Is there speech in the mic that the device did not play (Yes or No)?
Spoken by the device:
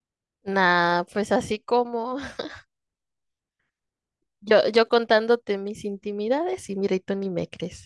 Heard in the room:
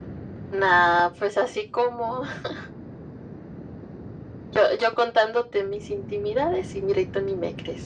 No